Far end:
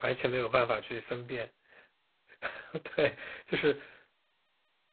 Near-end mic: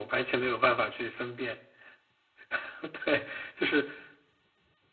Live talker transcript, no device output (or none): none